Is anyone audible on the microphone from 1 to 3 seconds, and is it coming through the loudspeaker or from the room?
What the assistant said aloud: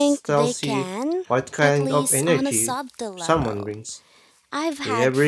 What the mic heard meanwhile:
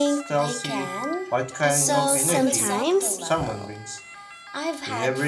both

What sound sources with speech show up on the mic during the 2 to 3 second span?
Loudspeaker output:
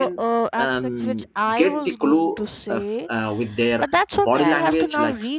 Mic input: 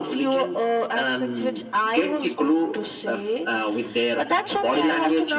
echo only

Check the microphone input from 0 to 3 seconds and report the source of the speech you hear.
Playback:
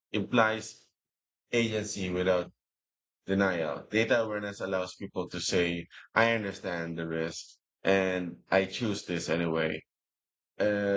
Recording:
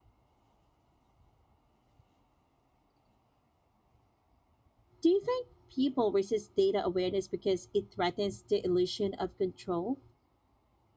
neither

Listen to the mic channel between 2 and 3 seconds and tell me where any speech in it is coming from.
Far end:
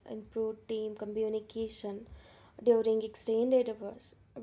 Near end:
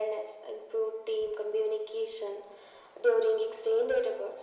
echo only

